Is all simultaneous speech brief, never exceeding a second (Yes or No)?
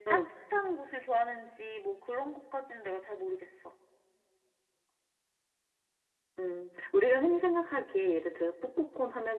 Yes